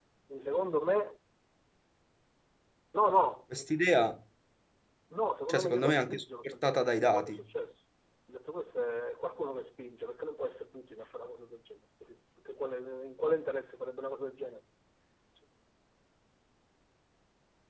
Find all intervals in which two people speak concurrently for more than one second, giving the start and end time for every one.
5.5-7.4

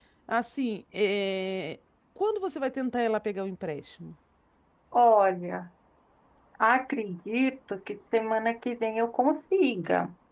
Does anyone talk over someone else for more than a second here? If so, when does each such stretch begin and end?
none

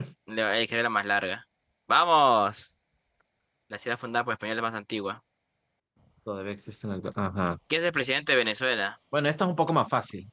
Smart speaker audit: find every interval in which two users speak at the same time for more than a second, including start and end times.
none

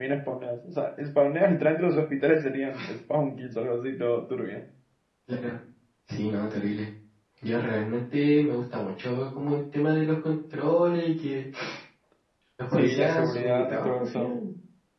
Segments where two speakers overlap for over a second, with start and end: 12.7-14.4

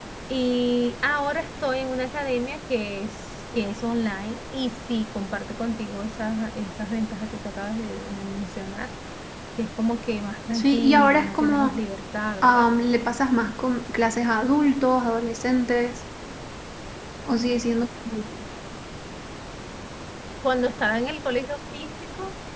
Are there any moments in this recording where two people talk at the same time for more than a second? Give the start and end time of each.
10.5-11.8

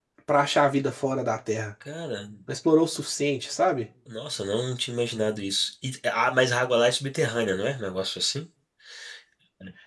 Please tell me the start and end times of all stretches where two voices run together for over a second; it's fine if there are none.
none

